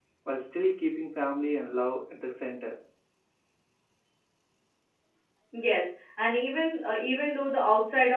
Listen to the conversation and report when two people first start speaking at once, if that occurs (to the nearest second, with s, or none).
none